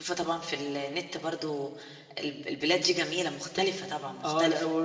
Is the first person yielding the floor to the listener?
Yes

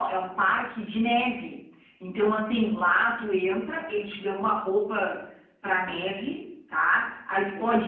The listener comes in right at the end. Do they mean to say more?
No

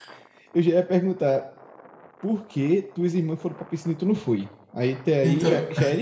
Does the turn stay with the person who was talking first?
Yes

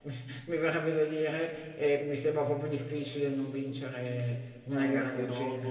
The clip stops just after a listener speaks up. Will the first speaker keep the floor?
No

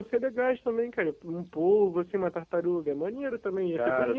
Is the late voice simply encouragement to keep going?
No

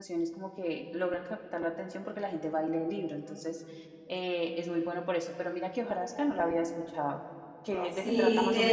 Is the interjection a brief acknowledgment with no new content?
No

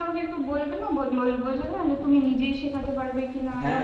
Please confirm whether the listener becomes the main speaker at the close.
Yes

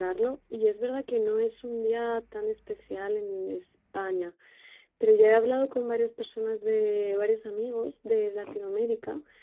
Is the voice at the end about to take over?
No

